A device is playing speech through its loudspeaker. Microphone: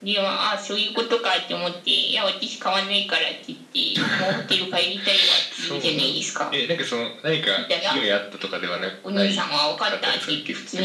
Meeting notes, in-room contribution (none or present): none